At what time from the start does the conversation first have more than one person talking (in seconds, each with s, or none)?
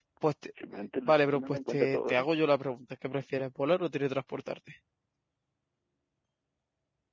1.1 s